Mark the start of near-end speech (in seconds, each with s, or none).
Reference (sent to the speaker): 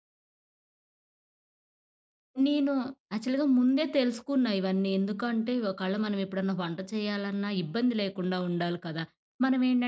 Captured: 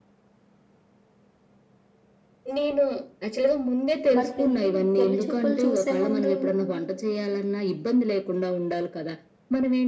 4.2 s